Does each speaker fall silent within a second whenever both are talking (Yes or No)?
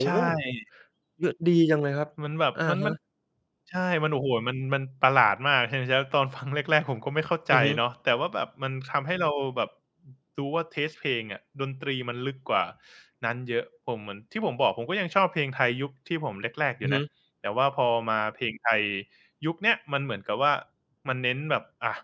Yes